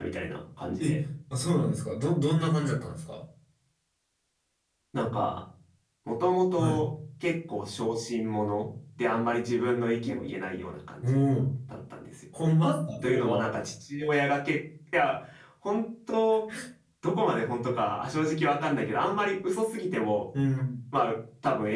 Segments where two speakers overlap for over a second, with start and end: none

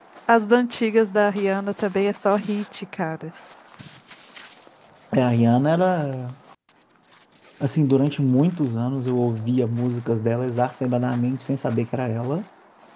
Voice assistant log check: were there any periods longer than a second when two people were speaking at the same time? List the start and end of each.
none

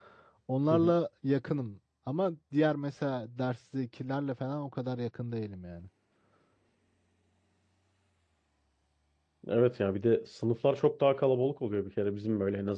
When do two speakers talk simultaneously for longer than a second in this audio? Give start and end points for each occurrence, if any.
none

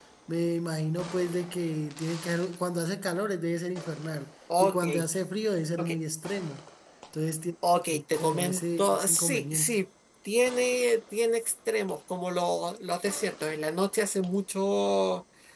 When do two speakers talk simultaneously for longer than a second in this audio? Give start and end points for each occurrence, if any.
8.2-9.8

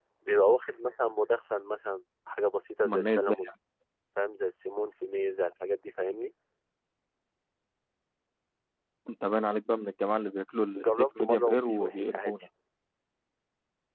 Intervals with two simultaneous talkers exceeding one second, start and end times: 10.8-12.3

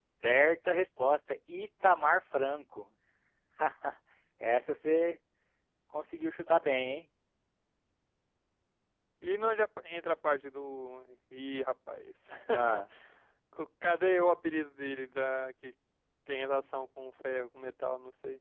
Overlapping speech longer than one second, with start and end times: none

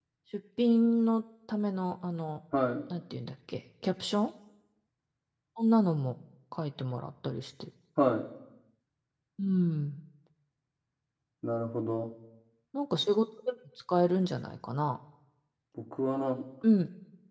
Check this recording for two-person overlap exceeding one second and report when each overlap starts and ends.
none

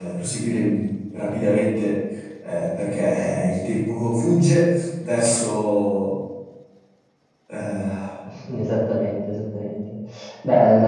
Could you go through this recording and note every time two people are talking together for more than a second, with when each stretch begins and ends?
none

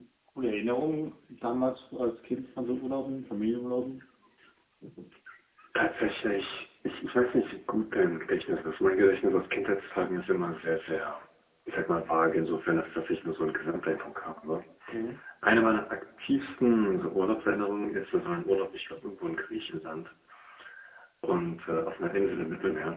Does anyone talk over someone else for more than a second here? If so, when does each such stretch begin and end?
none

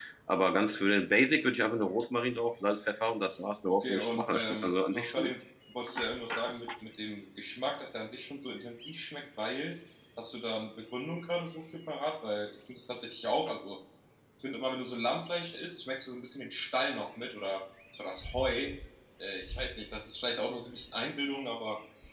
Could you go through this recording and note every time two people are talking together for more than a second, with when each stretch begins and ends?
3.7-5.3

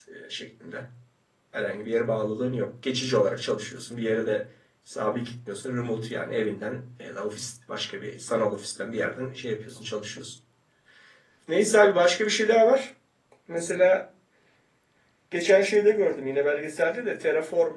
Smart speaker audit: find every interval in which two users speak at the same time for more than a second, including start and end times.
none

